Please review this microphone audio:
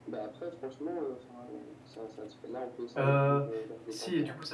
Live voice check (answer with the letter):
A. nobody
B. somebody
B